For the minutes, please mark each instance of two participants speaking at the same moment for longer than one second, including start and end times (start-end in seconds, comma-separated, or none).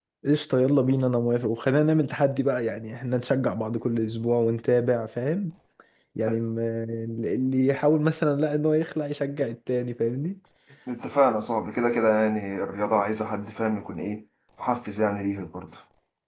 none